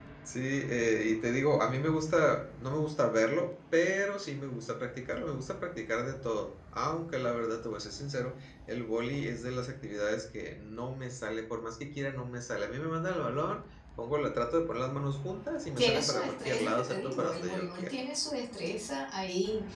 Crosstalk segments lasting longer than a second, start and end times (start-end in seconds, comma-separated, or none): 15.8-17.9